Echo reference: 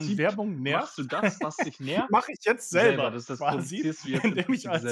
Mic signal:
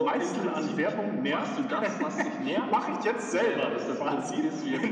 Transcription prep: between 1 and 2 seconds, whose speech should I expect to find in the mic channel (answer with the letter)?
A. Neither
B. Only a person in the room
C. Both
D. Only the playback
D